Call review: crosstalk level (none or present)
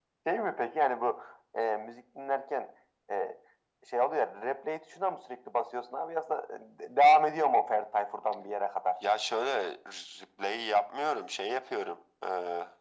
none